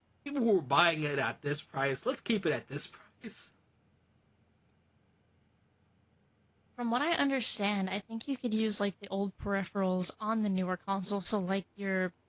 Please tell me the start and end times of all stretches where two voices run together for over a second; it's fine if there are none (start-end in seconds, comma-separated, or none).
none